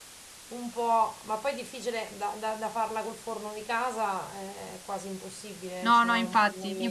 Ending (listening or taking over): taking over